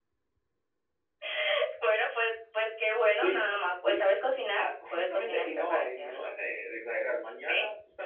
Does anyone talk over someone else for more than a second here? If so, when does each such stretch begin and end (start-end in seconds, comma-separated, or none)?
4.6-6.3